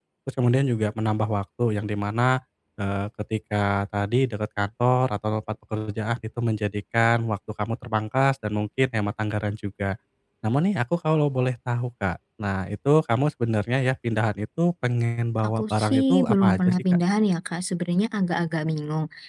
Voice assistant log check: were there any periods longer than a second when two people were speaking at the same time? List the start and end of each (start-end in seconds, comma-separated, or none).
15.4-16.8